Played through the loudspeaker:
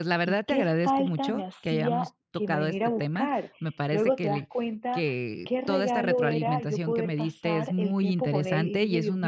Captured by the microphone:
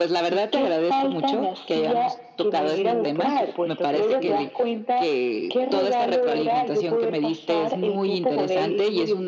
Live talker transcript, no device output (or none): Sí, por supuesto que sí.